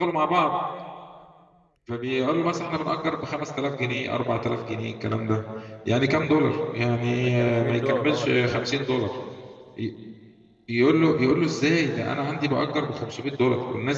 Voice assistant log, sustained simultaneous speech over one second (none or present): present